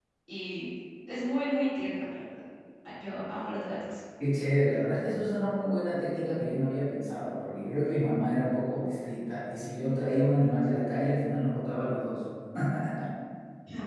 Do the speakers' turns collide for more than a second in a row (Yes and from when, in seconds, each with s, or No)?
No